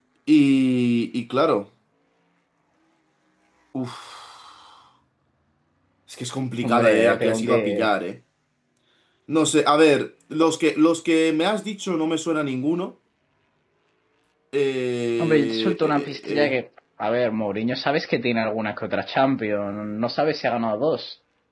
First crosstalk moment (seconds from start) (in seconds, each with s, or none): 6.6 s